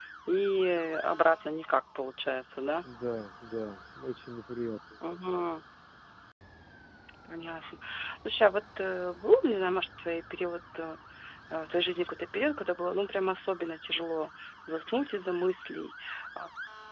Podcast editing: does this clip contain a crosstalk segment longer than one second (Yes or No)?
No